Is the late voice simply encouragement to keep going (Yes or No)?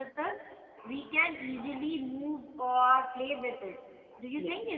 No